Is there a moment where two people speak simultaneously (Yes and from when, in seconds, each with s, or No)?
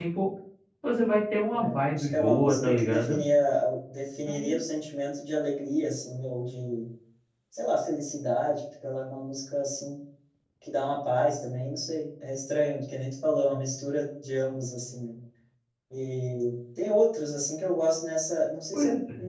Yes, from 1.5 s